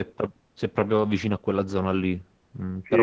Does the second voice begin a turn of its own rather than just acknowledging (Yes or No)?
Yes